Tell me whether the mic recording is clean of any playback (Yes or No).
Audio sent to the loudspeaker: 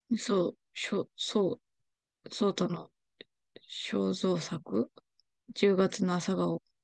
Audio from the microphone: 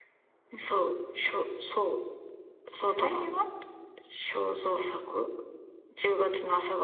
No